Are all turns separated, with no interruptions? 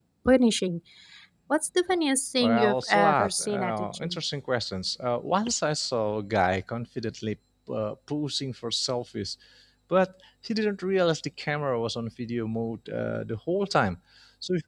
No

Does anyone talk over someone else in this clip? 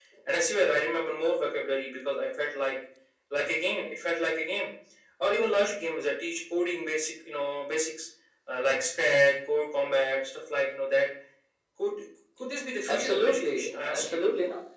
Yes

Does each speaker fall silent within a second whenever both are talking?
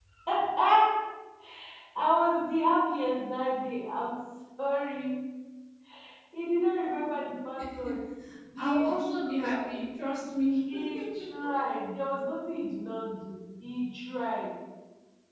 No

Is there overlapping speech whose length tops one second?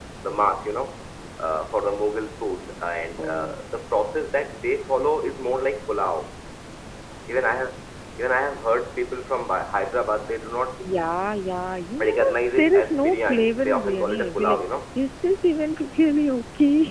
Yes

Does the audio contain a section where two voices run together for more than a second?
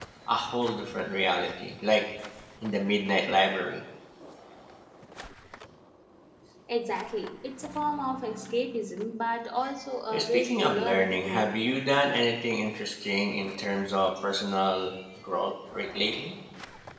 Yes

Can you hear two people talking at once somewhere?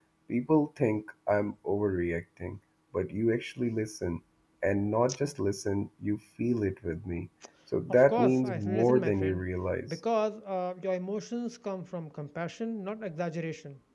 Yes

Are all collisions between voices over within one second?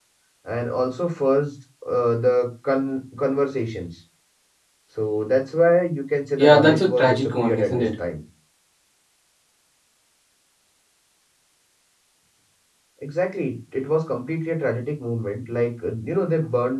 No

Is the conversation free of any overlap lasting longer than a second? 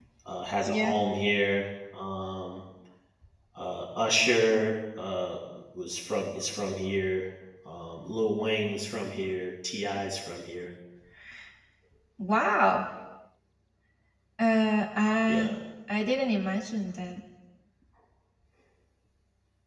Yes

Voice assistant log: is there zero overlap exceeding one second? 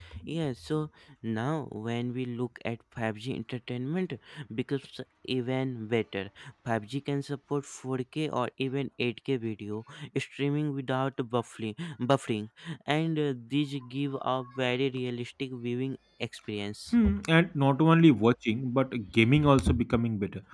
Yes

